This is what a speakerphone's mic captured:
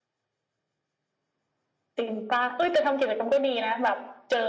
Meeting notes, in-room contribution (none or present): none